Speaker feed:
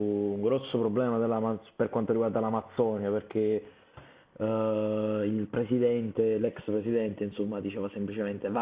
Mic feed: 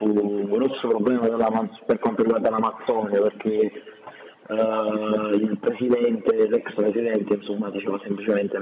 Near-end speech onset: none

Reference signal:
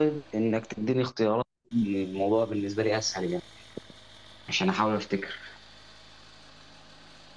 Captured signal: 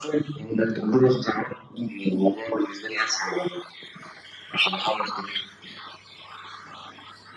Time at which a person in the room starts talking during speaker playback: none

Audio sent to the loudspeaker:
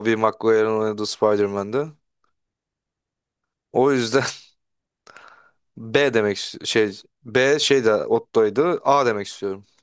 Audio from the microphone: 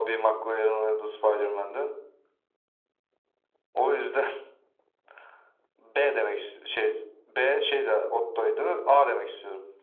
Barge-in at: none

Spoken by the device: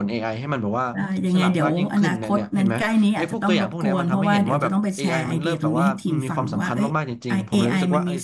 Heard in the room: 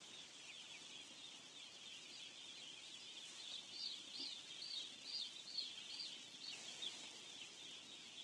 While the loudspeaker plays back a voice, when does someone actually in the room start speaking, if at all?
none

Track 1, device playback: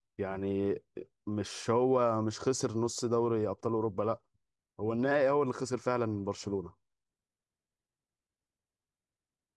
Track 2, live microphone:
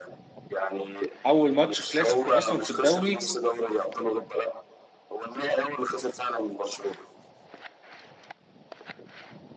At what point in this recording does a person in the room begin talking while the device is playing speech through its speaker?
1 s

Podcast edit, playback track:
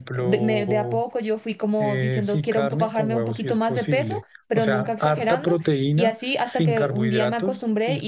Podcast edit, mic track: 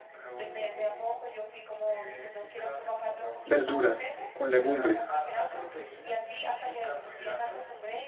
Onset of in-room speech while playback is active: 3 s

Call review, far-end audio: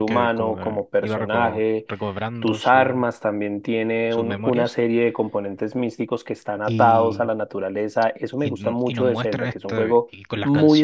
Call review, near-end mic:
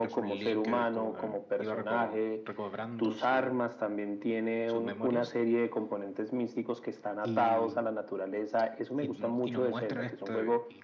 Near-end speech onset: none

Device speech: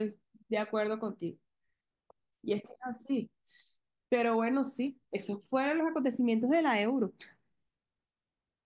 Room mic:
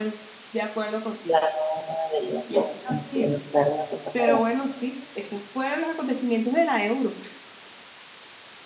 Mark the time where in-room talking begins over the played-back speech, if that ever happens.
1 s

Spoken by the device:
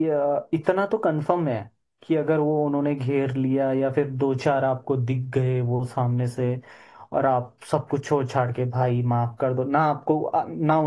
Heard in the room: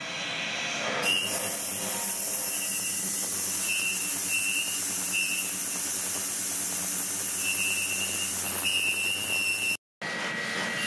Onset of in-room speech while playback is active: none

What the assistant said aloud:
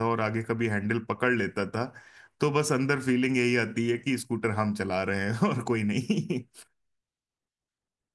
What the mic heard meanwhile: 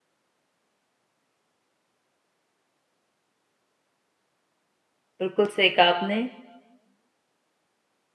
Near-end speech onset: 5 s

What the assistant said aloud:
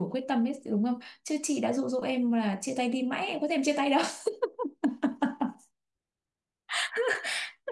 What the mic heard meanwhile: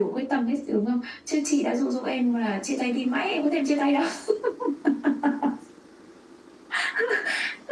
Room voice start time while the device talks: none

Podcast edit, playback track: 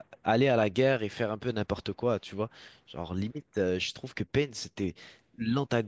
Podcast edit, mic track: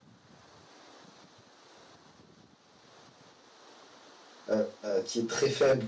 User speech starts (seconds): 4 s

